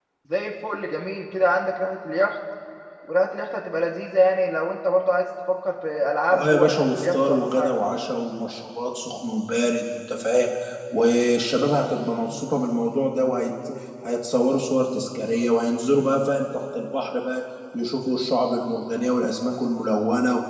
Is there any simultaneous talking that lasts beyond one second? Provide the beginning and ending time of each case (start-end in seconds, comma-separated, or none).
6.3-7.7